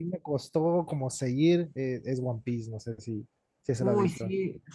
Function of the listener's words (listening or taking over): taking over